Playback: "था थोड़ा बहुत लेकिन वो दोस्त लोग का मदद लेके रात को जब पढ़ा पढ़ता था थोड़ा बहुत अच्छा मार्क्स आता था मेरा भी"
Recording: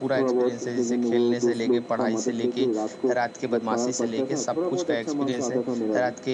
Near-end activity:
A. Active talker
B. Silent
A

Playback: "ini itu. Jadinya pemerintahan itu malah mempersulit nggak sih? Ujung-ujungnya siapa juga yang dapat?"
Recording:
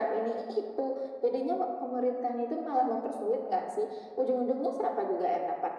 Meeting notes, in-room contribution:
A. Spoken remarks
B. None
B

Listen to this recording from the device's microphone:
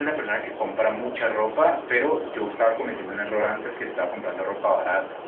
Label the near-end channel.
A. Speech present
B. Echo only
A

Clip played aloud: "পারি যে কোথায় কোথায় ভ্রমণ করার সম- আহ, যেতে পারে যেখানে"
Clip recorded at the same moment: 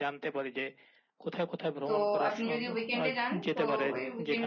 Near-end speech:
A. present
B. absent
A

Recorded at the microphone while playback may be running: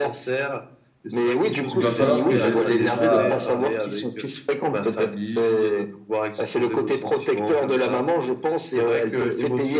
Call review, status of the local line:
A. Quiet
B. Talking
B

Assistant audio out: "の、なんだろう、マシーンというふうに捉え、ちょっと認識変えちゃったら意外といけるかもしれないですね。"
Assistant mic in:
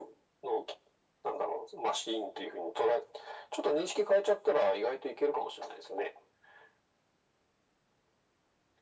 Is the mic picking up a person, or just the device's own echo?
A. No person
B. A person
A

